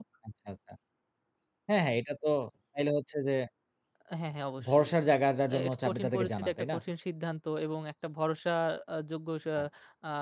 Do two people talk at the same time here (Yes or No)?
Yes